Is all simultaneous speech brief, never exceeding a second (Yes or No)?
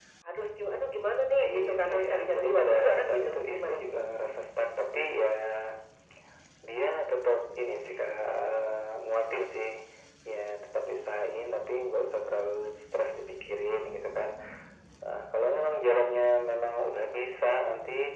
No